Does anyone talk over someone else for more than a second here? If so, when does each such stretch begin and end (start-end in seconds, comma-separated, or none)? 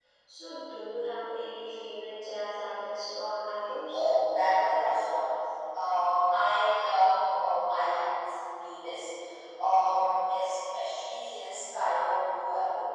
none